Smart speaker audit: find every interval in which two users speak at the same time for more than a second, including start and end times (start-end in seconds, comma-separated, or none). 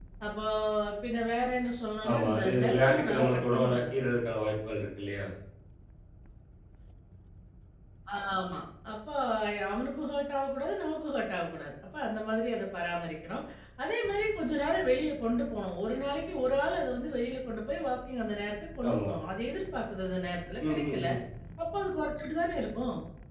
2.1-4.0